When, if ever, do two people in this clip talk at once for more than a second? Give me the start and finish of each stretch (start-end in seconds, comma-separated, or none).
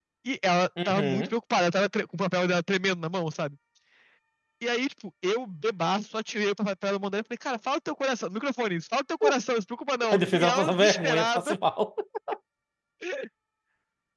10.1-11.6